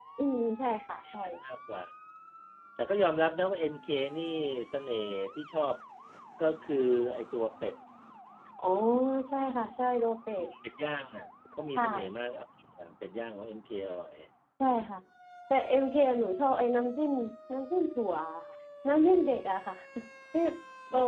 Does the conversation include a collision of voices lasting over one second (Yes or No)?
No